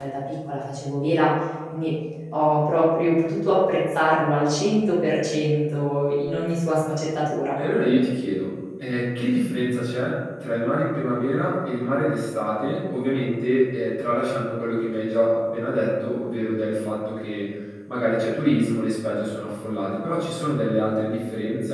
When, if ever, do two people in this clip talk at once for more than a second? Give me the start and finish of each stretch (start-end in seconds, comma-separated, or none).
none